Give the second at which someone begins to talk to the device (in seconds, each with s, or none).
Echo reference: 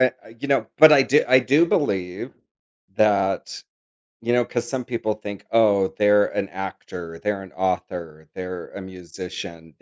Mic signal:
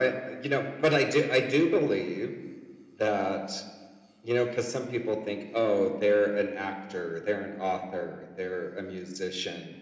none